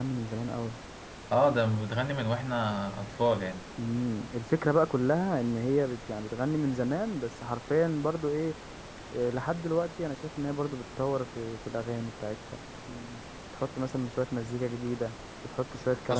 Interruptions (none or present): none